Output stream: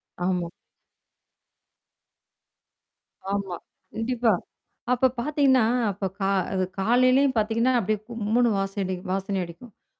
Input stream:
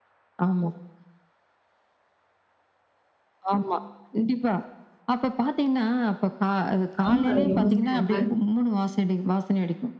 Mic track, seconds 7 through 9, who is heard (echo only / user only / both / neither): both